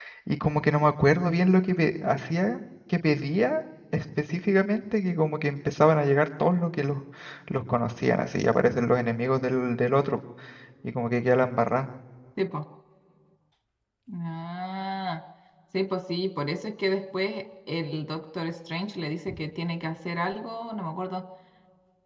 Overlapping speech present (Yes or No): No